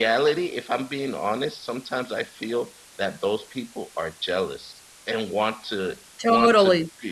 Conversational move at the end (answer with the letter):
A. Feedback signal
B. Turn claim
A